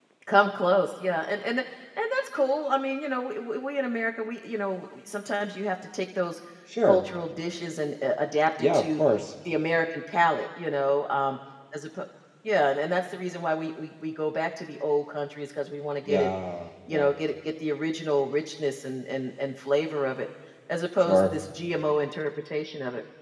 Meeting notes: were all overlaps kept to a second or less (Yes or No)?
Yes